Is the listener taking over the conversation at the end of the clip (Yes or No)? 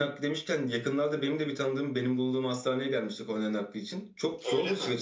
No